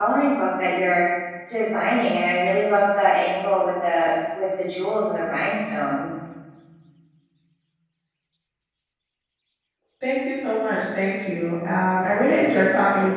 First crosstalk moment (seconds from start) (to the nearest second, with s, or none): none